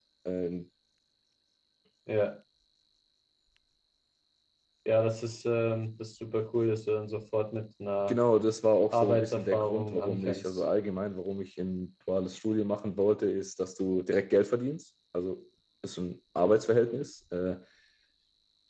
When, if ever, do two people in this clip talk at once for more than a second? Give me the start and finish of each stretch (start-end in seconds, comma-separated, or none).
8.9-10.6